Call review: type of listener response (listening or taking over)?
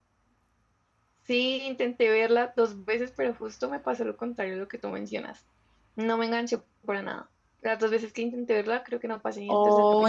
taking over